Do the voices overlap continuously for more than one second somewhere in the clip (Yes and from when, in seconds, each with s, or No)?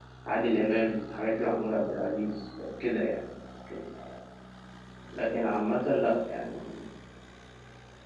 No